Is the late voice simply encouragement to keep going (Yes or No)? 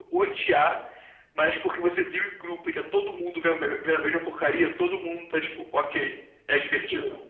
No